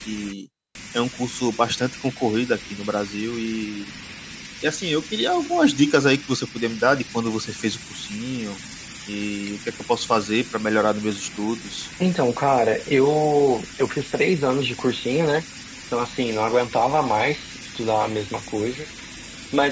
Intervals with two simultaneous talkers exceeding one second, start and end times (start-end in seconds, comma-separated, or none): none